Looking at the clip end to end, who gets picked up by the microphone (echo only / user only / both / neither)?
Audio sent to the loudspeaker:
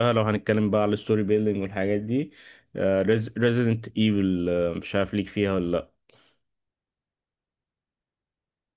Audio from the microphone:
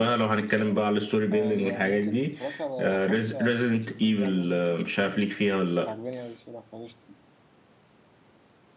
both